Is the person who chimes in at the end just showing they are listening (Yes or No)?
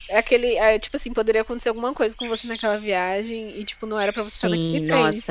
No